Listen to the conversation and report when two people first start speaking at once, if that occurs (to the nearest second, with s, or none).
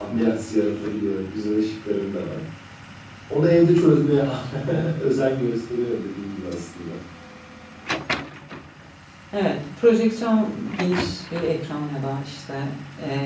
none